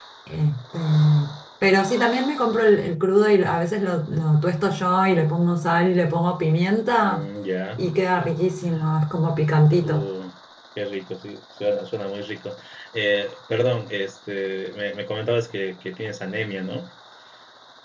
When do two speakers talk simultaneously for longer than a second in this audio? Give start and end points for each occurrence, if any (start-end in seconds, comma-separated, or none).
none